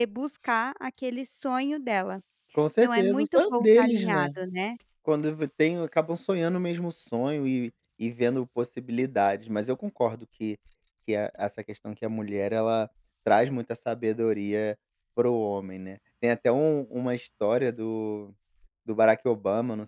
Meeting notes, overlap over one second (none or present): present